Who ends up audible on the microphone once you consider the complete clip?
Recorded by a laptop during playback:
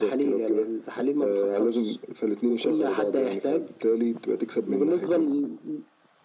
echo only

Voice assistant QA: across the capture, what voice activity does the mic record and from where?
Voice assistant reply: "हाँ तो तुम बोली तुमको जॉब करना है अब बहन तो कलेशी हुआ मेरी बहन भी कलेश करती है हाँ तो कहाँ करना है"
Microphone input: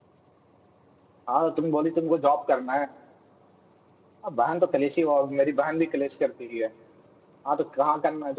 echo only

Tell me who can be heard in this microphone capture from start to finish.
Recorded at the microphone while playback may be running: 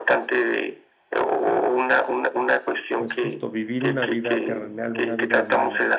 both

